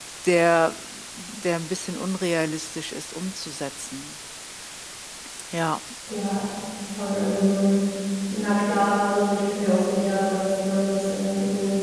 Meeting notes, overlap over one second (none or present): none